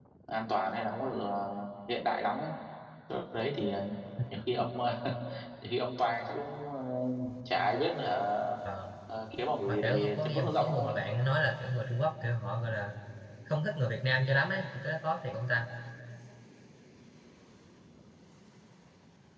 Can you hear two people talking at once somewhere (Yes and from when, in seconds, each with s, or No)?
Yes, from 9.7 s